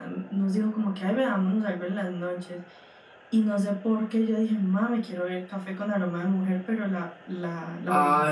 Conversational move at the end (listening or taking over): taking over